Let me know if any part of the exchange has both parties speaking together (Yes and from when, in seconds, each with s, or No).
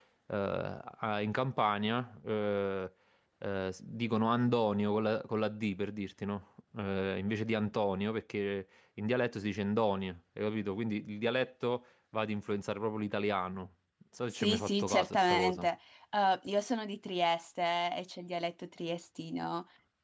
Yes, from 14.3 s